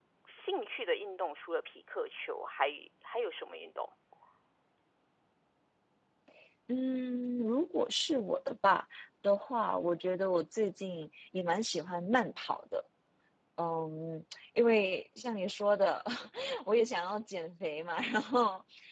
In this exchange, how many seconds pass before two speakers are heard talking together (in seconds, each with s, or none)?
none